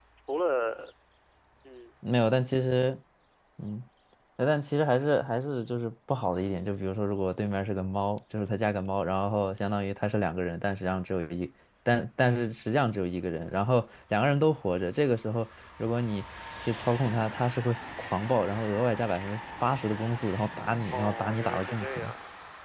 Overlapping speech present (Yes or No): Yes